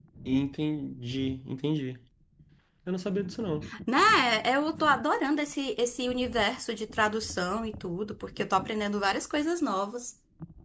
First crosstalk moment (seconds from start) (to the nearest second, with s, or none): none